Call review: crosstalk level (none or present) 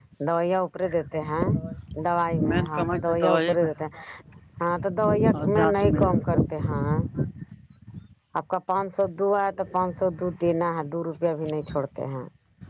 present